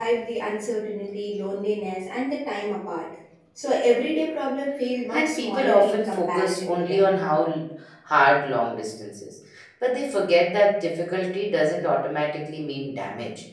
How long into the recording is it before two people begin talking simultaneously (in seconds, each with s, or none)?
5.1 s